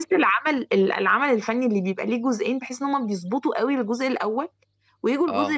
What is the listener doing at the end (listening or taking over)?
listening